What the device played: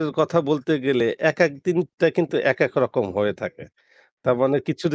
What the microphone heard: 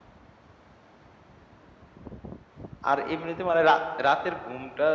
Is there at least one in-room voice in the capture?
Yes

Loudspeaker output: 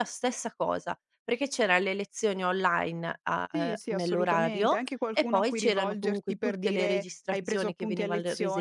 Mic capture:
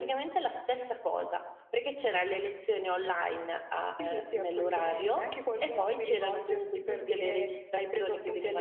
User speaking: No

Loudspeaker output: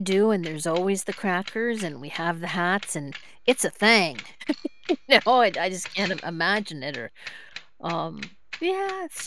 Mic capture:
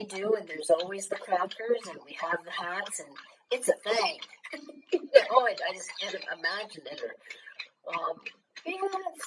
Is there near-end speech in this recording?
No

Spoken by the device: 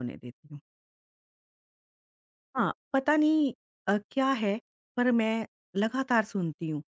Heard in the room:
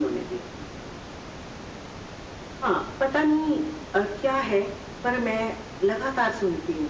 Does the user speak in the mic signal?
No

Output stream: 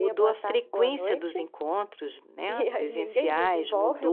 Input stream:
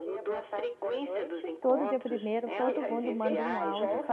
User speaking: Yes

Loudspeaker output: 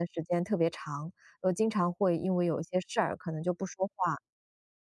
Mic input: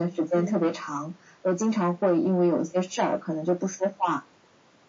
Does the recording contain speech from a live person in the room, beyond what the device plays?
Yes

